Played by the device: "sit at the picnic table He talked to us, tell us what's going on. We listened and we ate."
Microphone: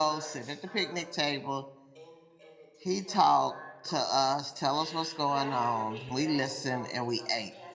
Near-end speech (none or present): present